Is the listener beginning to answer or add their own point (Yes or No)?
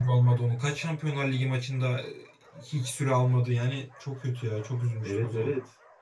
Yes